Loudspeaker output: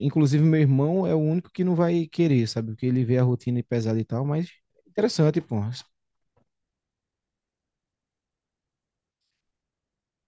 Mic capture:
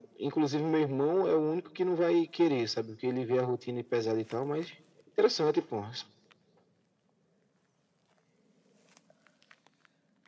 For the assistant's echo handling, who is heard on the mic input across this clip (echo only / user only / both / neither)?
echo only